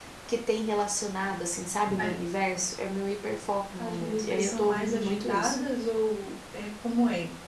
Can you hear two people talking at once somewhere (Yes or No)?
Yes